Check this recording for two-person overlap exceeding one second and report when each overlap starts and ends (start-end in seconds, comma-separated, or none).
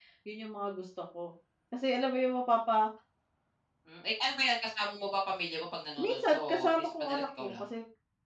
6.0-7.7